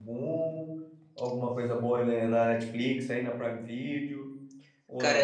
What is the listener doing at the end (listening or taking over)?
taking over